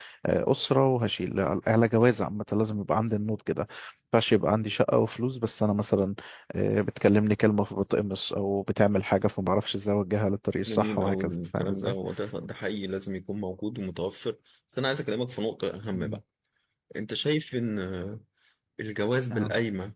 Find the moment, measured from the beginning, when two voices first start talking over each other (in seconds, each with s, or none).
10.7 s